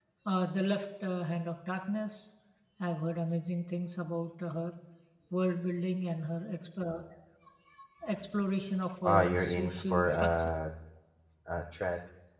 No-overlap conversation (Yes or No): No